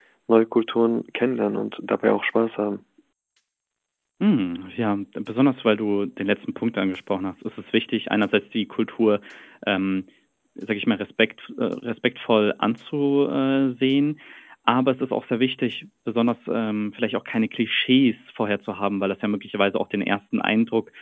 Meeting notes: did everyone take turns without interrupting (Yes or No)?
Yes